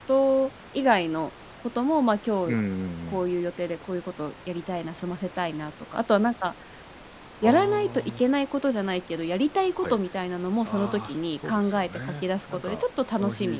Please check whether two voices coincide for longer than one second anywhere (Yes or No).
Yes